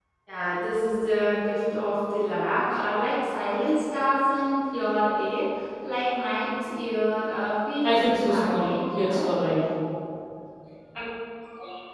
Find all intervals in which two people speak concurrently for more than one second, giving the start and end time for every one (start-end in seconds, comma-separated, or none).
7.8-9.3